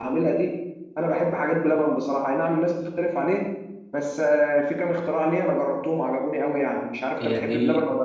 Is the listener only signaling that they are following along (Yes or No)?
No